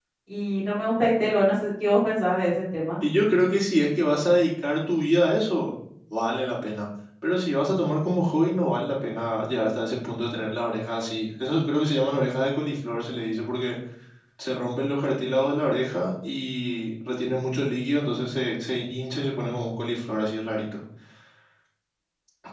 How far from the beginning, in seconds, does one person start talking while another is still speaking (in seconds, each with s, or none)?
none